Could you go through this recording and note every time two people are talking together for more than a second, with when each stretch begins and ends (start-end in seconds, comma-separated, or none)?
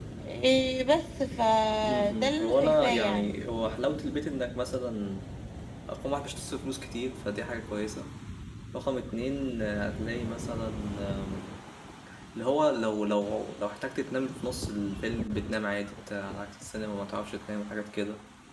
1.9-3.4